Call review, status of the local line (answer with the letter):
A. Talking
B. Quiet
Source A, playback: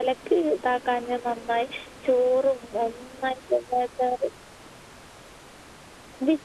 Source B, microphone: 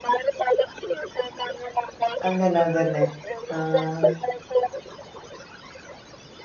A